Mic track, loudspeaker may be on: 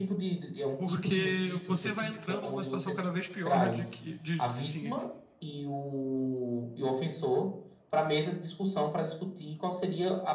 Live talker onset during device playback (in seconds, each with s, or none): 0.8 s